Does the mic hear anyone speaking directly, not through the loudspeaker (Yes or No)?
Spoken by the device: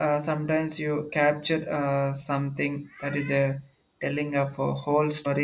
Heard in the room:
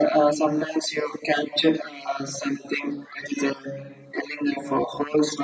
No